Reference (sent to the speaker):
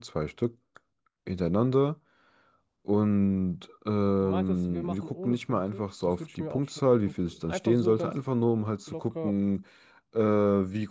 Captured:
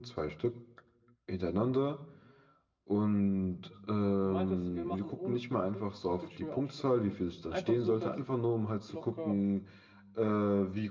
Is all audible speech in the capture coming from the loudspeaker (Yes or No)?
Yes